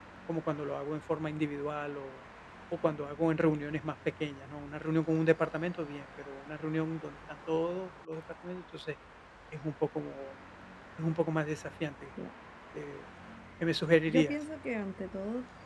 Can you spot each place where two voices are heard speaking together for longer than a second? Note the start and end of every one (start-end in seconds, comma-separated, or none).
none